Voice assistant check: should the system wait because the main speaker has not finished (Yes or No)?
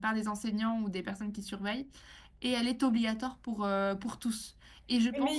No